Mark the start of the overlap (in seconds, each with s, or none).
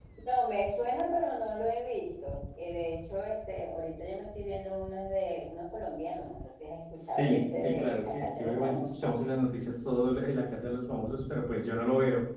7.1 s